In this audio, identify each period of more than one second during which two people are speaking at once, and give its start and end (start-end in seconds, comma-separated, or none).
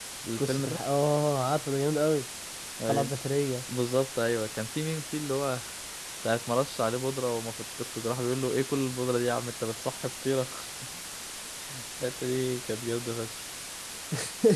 none